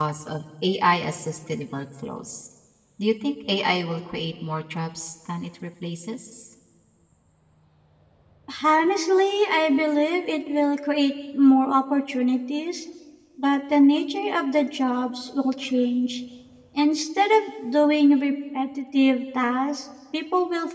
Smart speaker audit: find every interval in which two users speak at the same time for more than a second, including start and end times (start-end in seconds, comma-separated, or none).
none